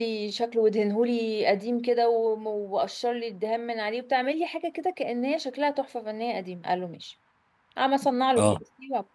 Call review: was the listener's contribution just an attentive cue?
Yes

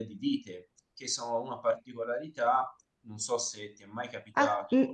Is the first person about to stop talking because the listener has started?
Yes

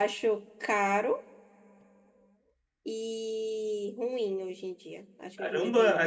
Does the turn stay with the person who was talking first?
No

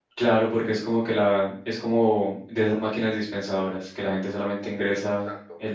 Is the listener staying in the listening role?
Yes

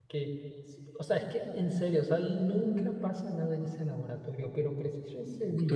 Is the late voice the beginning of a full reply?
Yes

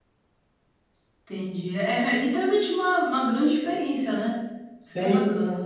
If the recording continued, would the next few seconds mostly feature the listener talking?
Yes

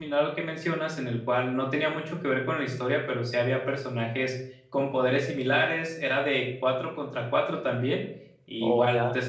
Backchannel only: Yes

